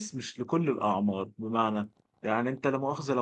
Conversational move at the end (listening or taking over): listening